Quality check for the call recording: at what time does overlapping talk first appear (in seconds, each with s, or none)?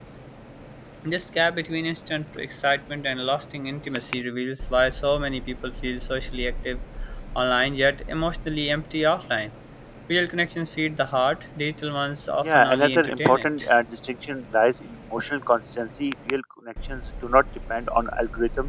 12.4 s